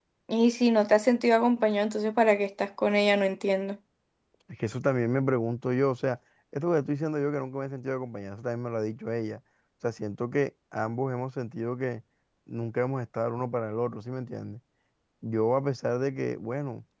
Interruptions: none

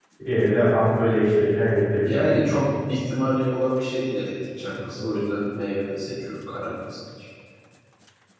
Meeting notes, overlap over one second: none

